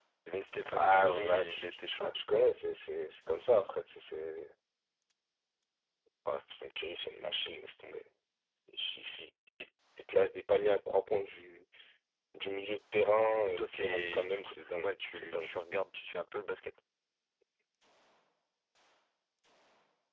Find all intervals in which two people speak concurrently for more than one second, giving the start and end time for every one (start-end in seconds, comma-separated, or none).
0.7-2.1, 13.6-15.5